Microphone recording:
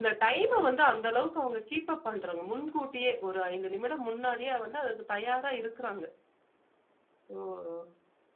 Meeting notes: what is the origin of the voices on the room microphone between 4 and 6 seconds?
user only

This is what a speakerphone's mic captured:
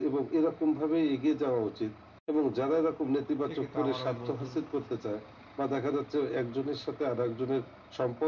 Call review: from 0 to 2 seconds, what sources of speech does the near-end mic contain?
echo only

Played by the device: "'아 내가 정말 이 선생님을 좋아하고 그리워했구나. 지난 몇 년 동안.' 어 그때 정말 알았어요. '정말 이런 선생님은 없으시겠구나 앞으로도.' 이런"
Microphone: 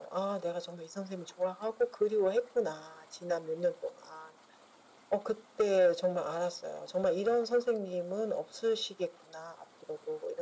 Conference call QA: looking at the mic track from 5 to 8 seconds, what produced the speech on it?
echo only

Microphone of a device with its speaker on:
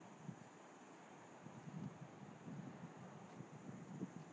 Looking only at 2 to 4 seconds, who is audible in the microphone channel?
neither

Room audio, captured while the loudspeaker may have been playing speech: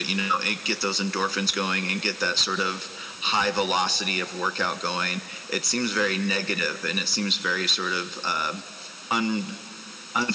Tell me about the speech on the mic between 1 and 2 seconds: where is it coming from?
echo only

